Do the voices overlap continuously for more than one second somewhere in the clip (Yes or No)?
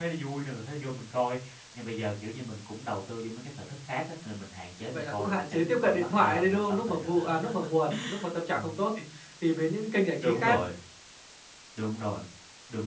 Yes